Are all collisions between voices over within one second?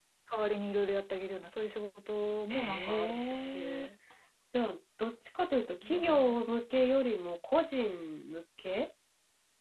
No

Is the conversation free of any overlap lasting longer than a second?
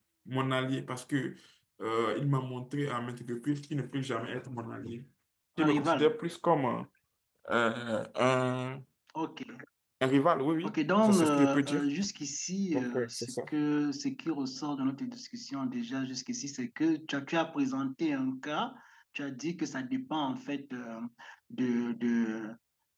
No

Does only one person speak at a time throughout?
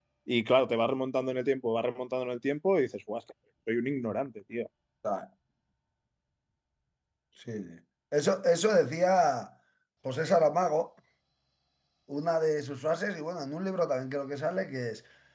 Yes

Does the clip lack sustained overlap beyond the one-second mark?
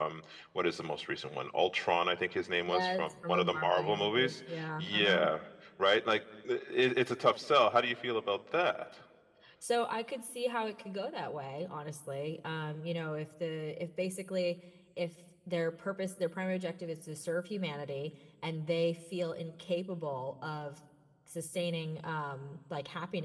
No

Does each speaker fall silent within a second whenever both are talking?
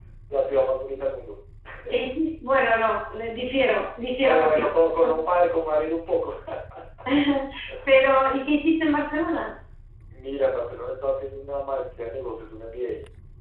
Yes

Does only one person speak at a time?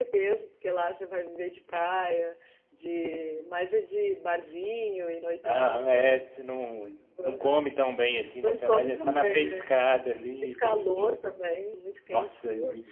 No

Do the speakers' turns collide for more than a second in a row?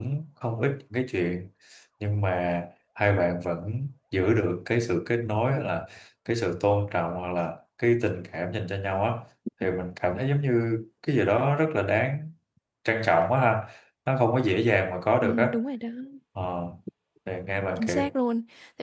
No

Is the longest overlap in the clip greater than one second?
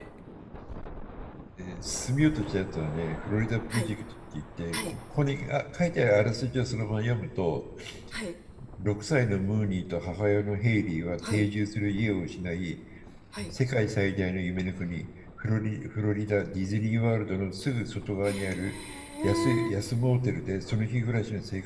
No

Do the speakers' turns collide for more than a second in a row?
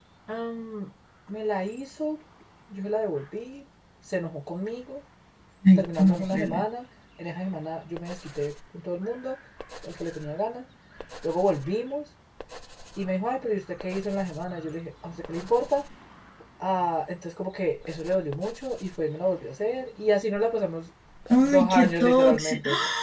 Yes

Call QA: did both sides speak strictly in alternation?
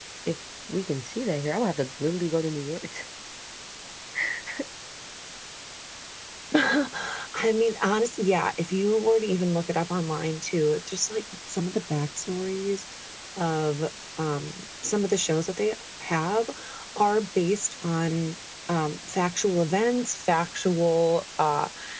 Yes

